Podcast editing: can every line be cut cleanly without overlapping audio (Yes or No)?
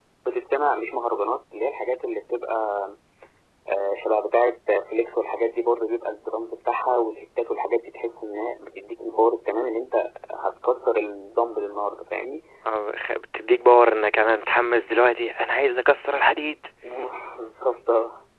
Yes